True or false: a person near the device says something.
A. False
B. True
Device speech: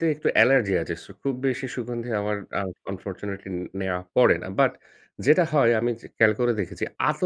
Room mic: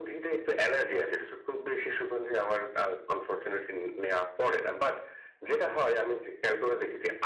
A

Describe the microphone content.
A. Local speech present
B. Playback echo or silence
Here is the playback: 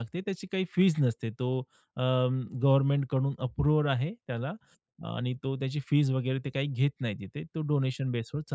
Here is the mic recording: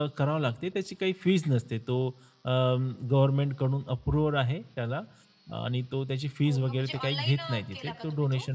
A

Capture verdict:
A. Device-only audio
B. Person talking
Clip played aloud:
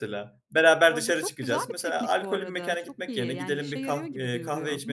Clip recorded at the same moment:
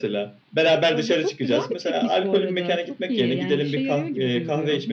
A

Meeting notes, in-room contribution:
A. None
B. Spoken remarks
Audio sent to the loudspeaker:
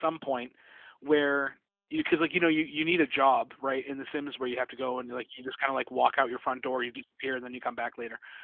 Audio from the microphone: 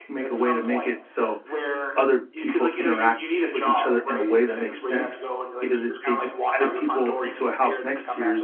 B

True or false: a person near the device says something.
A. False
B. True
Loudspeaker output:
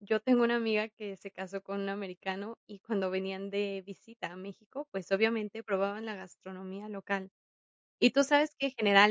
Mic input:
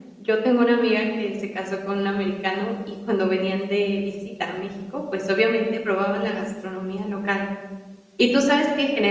A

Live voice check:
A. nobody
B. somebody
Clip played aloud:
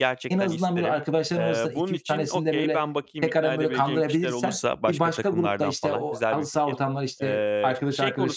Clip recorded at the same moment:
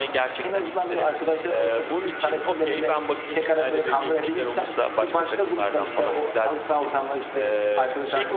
A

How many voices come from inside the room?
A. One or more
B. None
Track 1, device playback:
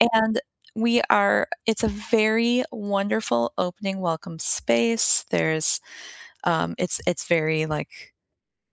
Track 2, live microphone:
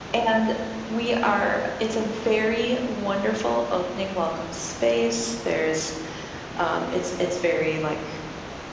B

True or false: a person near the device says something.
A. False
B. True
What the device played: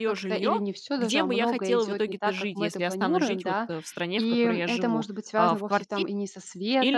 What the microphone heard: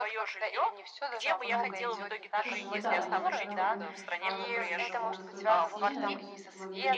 B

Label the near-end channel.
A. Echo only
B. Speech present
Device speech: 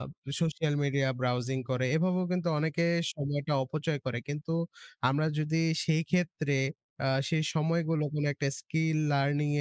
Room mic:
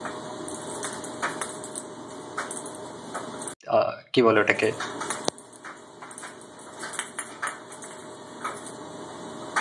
B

